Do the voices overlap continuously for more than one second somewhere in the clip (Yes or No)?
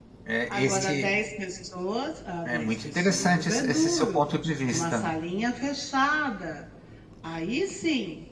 Yes